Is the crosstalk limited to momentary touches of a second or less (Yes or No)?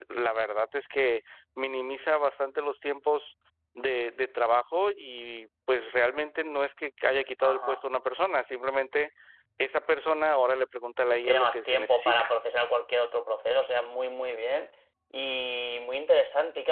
No